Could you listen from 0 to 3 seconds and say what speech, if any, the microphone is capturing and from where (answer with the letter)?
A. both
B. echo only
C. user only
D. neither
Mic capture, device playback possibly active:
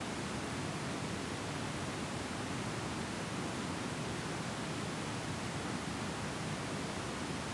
D